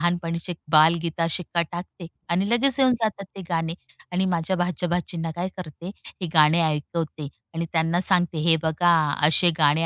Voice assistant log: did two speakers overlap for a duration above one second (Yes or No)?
No